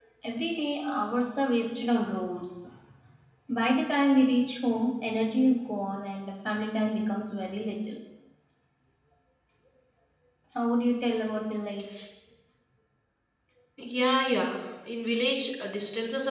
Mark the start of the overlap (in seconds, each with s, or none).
none